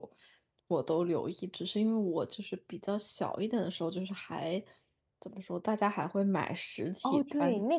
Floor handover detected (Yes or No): Yes